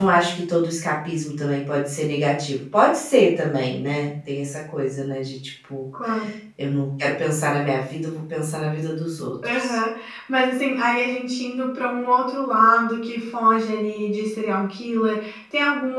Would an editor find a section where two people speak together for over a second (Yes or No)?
No